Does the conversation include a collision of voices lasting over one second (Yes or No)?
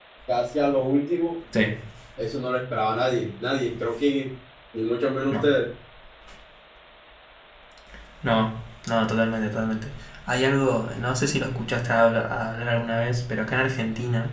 No